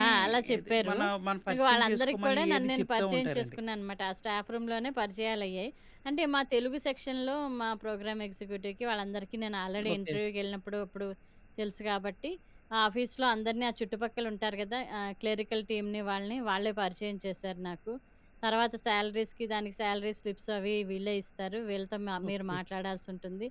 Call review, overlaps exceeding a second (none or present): present